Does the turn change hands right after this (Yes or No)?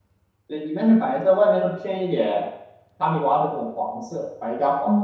Yes